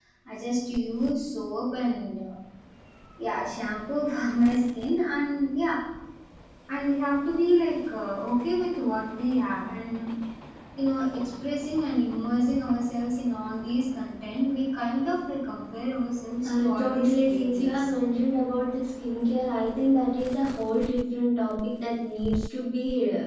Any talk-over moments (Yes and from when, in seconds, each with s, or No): Yes, from 16.4 s